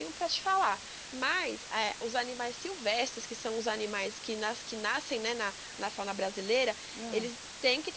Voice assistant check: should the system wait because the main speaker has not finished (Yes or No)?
Yes